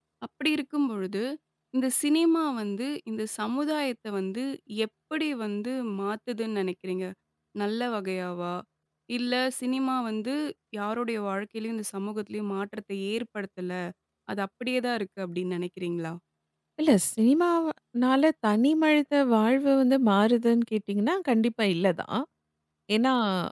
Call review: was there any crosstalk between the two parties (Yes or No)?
No